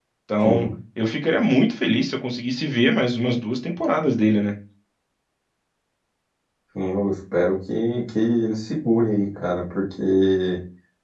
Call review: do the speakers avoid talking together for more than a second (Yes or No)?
Yes